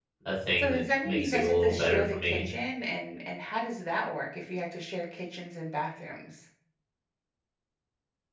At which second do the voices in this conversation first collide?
0.6 s

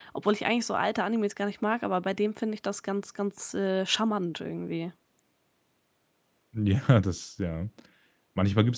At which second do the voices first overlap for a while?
none

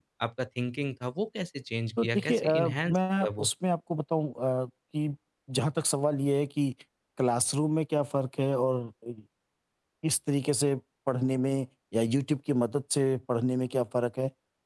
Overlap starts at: 2.0 s

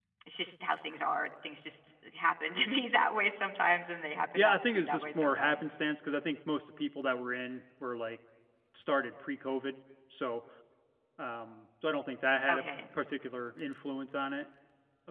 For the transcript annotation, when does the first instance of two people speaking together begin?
4.3 s

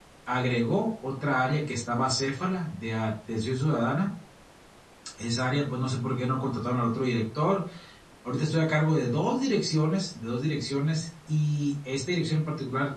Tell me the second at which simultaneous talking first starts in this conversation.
none

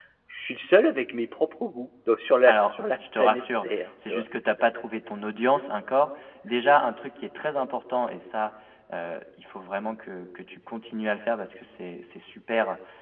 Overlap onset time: 2.5 s

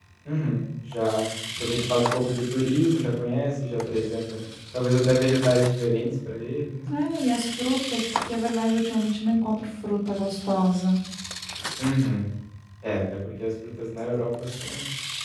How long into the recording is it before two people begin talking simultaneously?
none

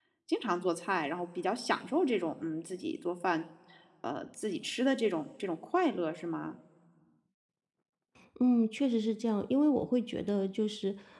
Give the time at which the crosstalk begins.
none

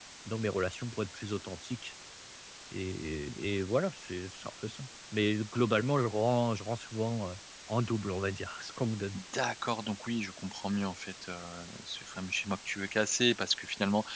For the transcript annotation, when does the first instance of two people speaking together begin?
none

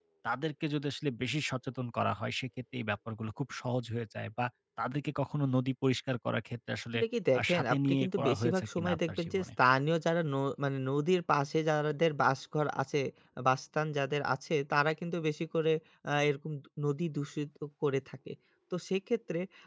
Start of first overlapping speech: 7.4 s

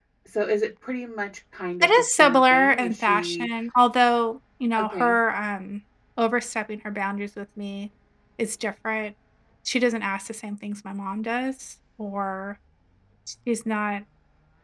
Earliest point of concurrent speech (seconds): 1.8 s

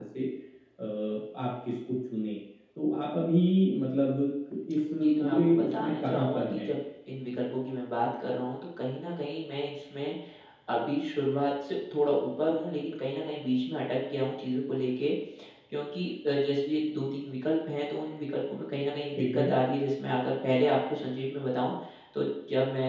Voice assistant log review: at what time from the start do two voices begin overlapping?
5.0 s

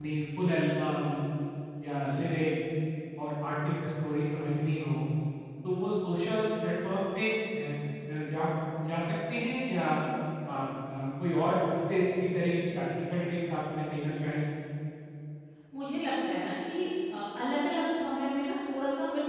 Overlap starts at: none

